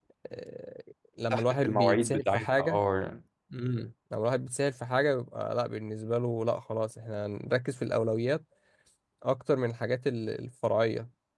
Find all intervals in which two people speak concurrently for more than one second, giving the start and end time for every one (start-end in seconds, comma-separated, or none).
1.3-2.8